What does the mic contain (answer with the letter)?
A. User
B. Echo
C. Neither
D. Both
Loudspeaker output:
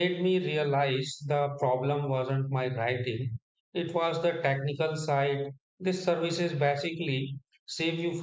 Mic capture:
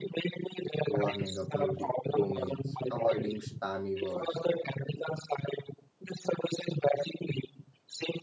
D